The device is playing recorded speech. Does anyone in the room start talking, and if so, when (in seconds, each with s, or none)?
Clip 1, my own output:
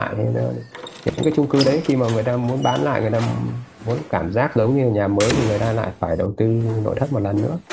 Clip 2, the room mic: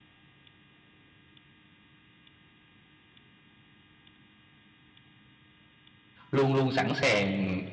6.3 s